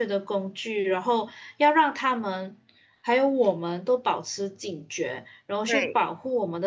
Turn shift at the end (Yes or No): No